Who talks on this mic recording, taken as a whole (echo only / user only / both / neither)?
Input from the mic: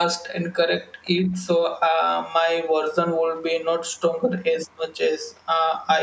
user only